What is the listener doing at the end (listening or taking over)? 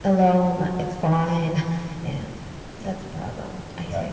taking over